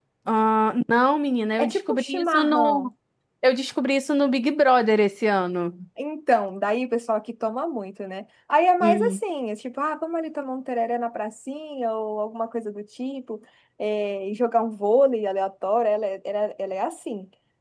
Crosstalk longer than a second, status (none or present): present